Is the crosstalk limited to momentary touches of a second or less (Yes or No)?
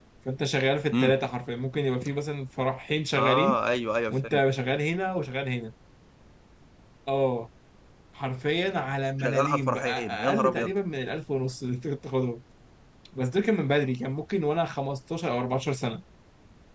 No